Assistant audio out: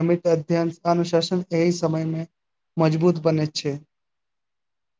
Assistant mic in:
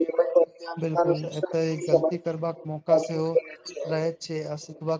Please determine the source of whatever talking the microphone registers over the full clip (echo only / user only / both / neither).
both